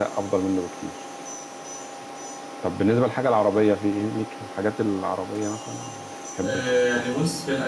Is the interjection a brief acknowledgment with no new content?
No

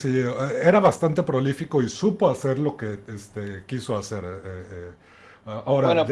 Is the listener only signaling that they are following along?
No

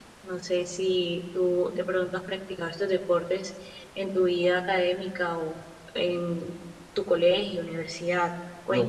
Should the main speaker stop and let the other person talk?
Yes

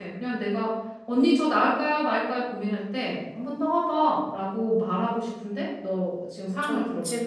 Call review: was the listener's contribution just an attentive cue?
No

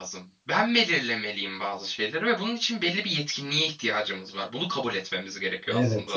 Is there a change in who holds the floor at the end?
Yes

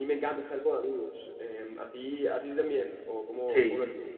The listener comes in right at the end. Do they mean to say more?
Yes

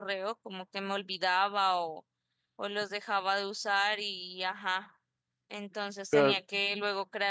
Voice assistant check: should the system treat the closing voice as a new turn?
No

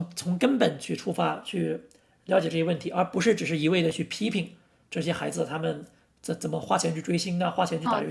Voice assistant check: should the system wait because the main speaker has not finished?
No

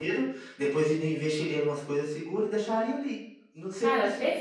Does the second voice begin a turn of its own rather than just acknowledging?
No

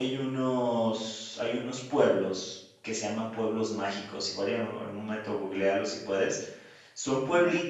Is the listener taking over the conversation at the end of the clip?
No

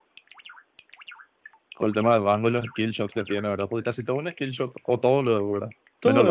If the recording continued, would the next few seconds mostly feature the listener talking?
Yes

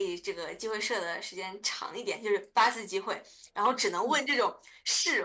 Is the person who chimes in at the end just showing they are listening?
Yes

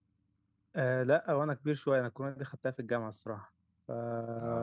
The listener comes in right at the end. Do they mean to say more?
Yes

